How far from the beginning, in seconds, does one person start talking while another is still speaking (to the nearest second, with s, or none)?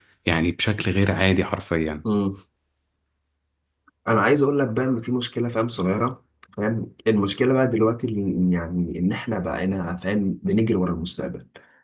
none